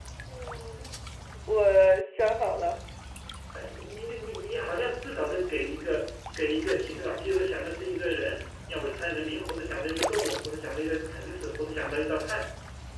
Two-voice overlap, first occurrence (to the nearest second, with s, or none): none